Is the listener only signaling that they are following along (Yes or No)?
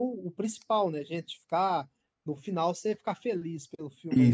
No